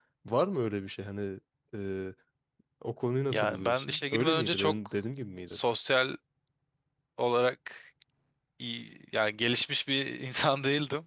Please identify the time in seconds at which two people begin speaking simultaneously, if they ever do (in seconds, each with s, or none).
3.3 s